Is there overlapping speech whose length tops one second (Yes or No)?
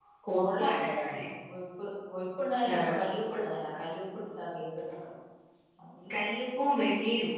No